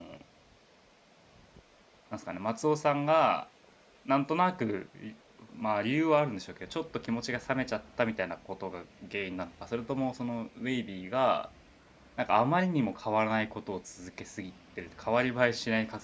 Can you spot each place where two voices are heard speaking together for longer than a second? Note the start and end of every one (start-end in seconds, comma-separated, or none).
none